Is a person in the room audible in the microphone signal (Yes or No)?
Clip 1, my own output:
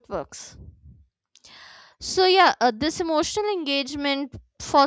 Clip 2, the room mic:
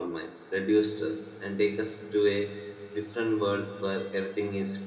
Yes